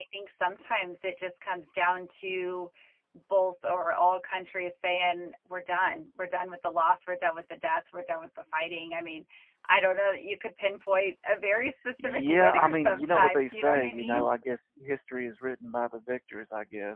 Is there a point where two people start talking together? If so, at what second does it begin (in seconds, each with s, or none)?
12.0 s